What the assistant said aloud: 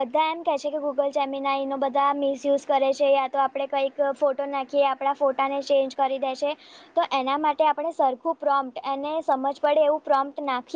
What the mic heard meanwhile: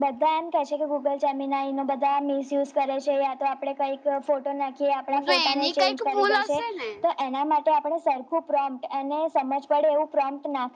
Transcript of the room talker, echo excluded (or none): હું તો એની કંઈક ભૂલ હશે ને.